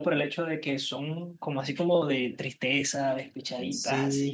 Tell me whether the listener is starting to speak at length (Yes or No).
Yes